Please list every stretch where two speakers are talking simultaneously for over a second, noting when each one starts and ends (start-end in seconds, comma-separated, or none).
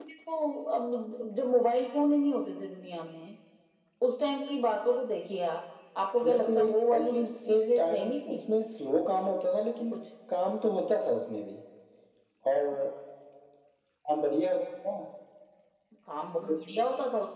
6.2-8.4